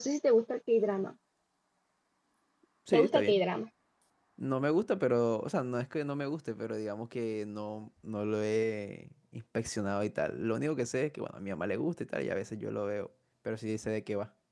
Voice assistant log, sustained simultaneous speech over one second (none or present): none